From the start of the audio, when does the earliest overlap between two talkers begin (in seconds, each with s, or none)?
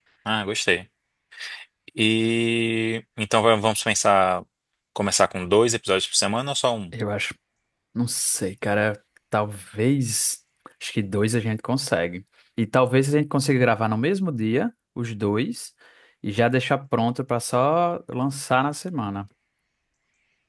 none